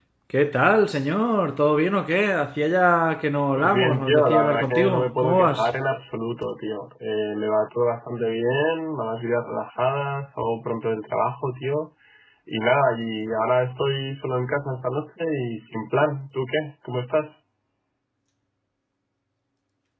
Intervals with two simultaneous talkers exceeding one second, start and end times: 3.6-5.7

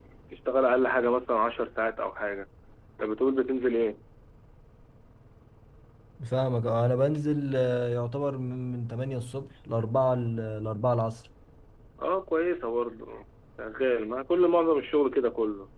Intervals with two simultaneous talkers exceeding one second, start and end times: none

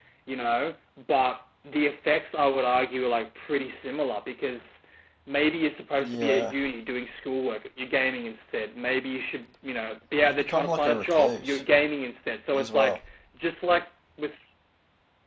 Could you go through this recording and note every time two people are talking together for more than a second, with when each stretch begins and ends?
10.3-11.6

